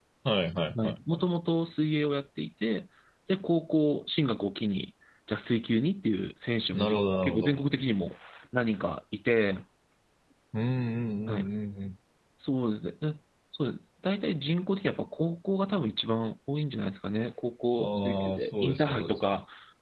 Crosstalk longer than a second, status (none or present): present